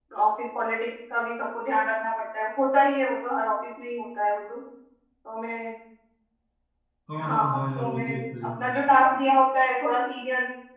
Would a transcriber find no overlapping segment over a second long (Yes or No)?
No